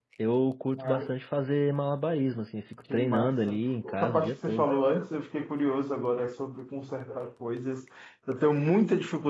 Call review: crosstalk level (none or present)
present